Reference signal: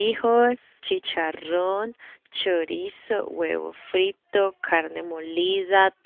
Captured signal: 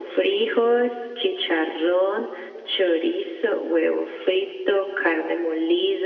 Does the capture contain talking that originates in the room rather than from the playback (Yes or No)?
No